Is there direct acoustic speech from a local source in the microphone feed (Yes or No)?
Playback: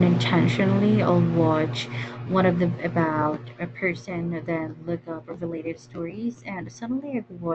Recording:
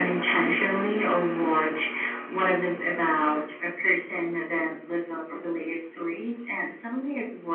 No